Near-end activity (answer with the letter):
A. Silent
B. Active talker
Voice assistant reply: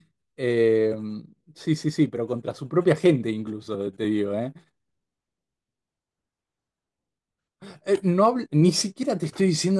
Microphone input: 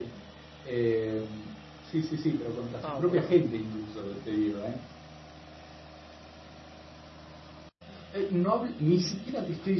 B